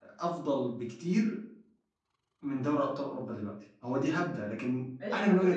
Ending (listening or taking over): taking over